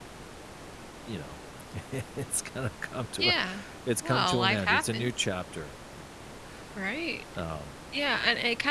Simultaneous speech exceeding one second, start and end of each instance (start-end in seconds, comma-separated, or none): 4.0-5.3